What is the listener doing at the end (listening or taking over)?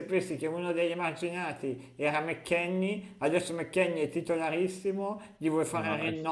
listening